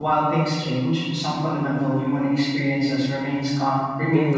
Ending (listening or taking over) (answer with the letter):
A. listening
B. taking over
B